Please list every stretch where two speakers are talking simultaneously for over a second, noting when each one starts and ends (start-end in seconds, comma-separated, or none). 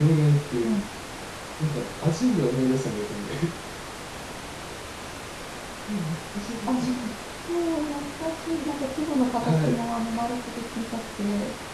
none